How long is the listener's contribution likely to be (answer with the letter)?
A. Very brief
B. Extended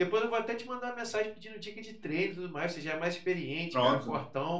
A